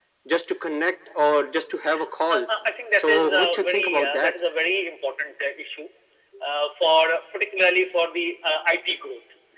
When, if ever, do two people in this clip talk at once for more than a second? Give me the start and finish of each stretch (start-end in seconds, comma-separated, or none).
2.9-4.3